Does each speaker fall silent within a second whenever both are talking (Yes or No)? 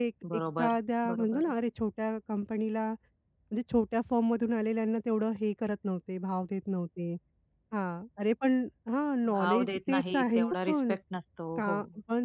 No